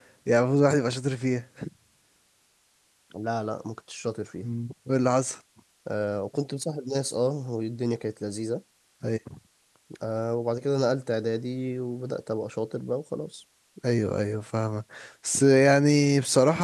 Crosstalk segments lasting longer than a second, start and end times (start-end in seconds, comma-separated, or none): none